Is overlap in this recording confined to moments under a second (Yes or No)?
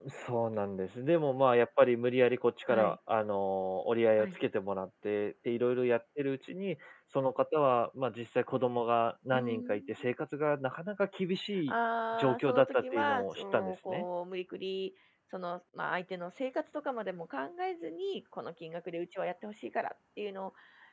No